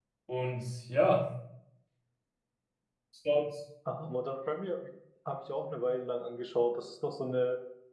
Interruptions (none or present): none